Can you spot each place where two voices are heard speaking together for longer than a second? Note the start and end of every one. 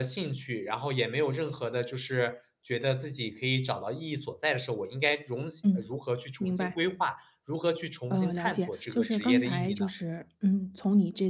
8.1-9.9

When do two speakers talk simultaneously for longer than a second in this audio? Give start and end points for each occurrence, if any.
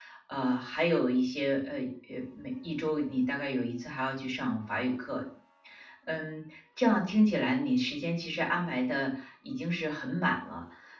none

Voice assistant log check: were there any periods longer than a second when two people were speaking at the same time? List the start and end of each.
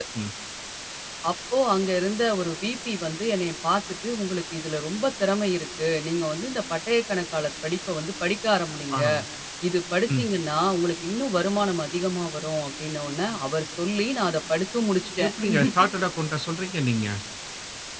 none

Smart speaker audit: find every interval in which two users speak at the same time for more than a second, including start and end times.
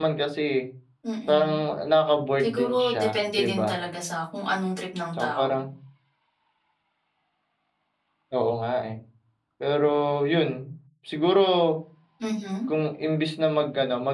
2.4-3.7

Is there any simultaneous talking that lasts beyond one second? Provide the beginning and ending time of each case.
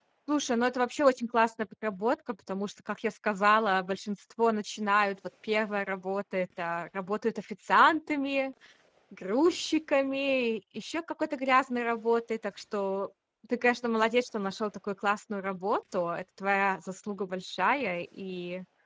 none

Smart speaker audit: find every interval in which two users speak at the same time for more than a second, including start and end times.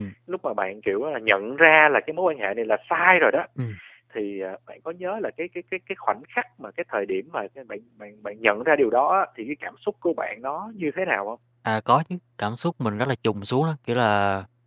none

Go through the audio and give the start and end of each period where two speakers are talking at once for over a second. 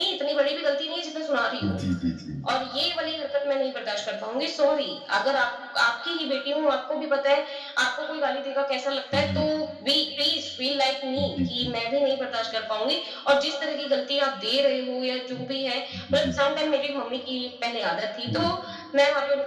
none

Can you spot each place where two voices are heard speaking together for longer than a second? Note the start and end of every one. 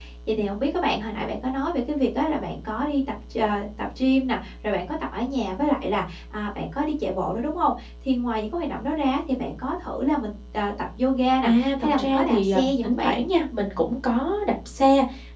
11.4-13.2

